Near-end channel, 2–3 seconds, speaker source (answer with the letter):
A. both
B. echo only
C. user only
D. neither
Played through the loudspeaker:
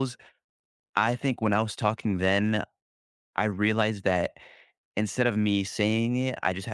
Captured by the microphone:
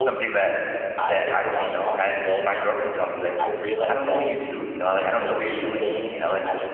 A